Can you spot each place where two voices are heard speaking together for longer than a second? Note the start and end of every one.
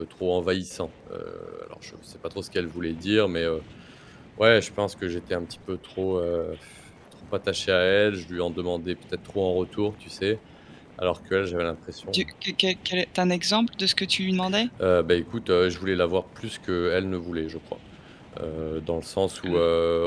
none

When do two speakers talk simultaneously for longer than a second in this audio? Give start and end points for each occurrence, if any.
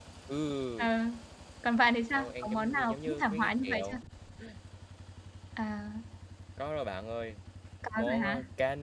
2.1-4.0

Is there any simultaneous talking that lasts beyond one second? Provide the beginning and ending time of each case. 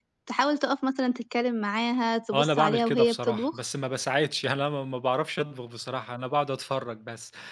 2.3-3.6

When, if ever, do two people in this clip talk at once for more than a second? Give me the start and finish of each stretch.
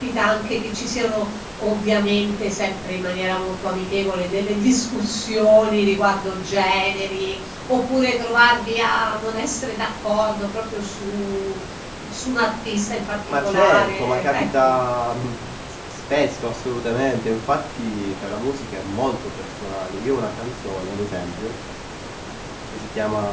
13.4-14.7

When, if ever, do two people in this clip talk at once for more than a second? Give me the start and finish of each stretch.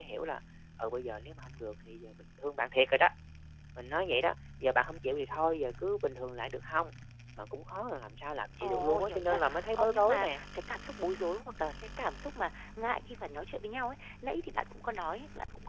8.6-10.4

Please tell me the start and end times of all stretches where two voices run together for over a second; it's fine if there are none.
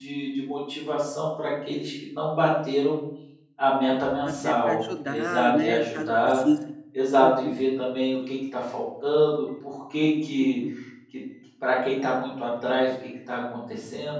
4.2-6.4

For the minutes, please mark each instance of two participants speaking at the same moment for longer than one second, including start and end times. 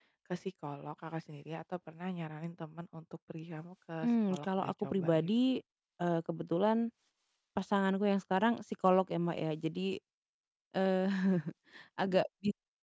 4.0-5.3

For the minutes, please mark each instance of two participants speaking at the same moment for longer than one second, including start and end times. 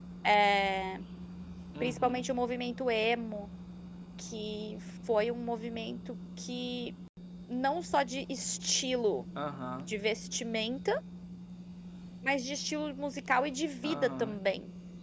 none

